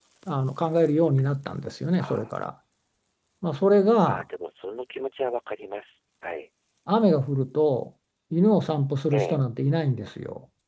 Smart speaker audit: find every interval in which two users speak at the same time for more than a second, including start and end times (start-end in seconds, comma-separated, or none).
none